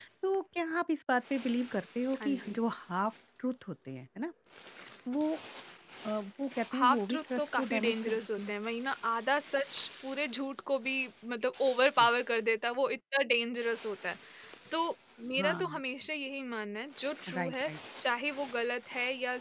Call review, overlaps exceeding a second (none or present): present